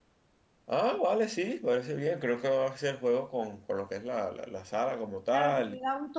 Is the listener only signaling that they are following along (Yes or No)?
No